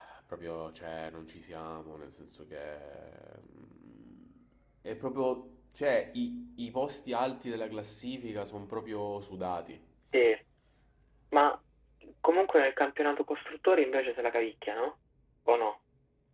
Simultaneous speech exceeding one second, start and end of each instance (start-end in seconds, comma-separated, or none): none